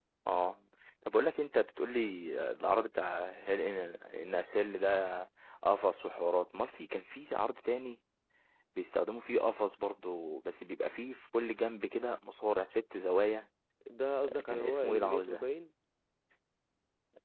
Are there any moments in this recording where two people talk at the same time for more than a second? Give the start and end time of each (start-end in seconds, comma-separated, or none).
14.2-15.5